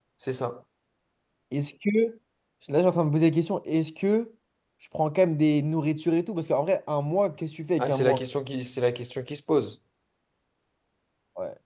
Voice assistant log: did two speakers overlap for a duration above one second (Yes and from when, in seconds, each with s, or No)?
No